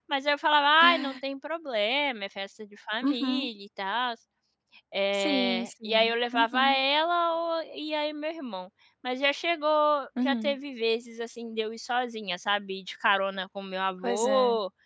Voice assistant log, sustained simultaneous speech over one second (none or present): present